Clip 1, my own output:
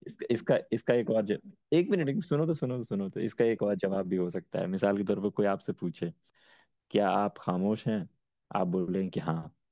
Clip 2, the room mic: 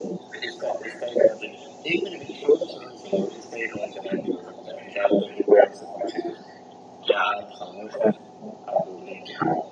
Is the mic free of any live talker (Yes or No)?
Yes